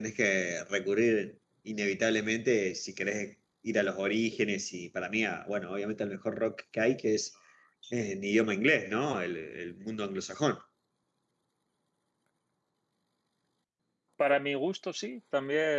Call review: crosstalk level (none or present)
none